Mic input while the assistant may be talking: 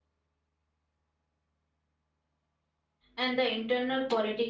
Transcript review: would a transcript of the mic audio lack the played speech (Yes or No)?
Yes